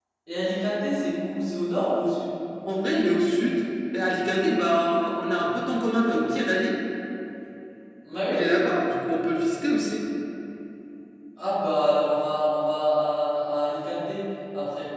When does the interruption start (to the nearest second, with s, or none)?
none